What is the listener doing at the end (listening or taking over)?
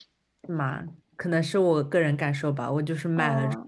listening